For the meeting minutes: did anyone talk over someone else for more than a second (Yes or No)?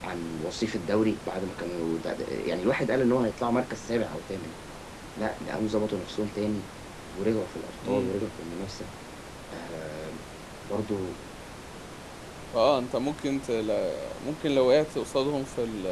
No